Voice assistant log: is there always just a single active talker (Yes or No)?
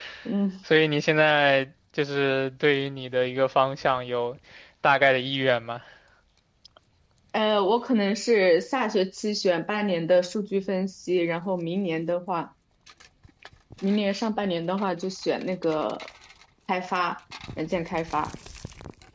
Yes